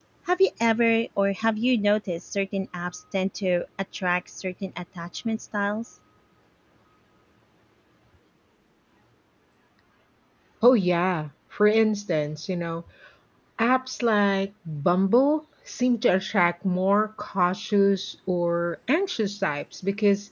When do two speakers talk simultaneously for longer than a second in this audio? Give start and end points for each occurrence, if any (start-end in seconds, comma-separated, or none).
none